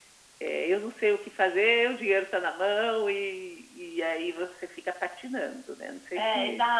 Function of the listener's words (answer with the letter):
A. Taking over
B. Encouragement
A